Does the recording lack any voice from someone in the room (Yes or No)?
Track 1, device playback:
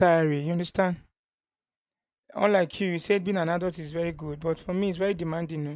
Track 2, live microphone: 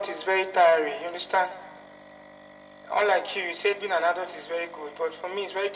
Yes